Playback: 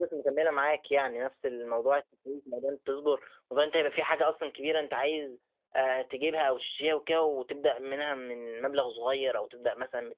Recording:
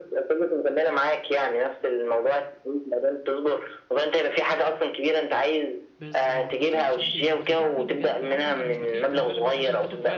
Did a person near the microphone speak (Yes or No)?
Yes